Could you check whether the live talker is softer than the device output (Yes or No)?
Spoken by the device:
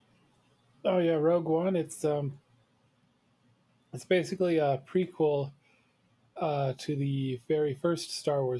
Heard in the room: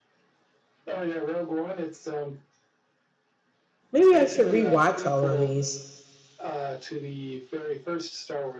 No